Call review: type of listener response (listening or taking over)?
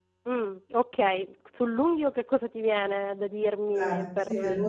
taking over